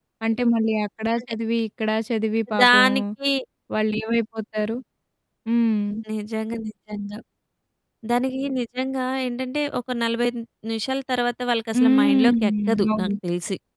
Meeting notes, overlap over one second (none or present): present